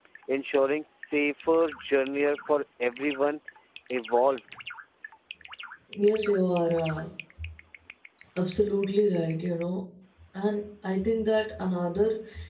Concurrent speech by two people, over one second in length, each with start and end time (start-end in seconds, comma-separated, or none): none